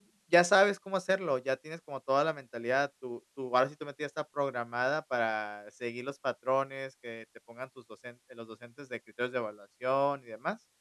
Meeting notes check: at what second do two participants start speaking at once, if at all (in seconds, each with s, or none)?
none